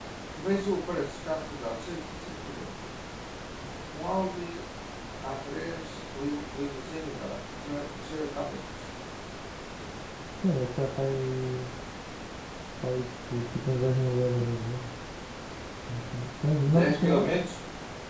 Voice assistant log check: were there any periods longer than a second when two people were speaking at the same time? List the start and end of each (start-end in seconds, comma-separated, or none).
none